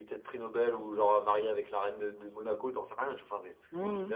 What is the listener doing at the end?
taking over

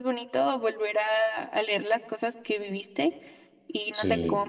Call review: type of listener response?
listening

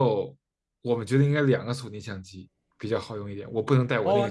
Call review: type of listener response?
taking over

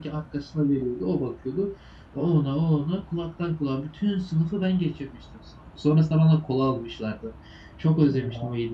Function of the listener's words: listening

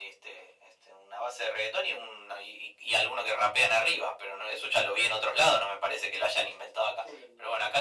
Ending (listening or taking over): taking over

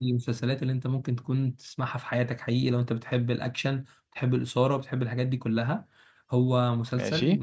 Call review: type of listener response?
listening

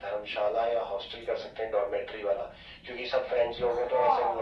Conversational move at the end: taking over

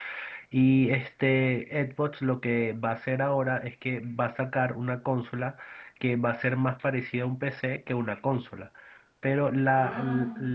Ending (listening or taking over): listening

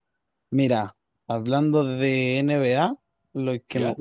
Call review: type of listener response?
listening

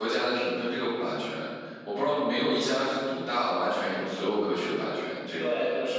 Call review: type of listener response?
taking over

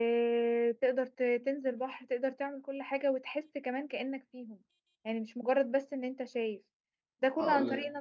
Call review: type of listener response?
listening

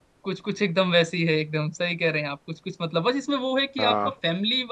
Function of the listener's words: listening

